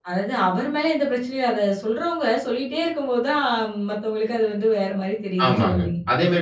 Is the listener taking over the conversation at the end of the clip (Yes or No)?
Yes